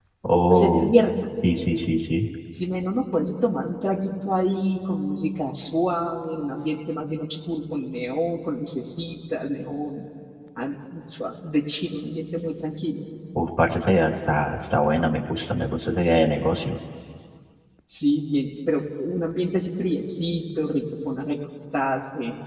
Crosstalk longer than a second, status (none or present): none